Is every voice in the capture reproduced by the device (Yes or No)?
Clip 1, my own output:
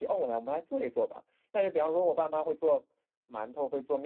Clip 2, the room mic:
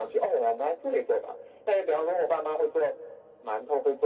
Yes